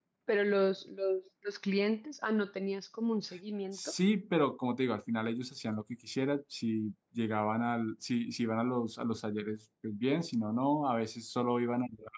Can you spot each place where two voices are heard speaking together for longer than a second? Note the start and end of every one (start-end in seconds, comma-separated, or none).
none